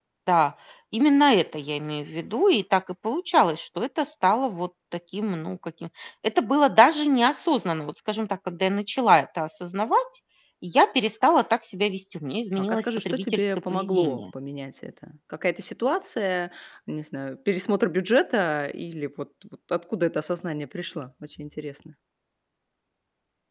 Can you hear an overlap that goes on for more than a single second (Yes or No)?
Yes